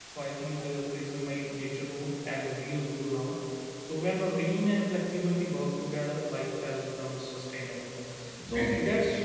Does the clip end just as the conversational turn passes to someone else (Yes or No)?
No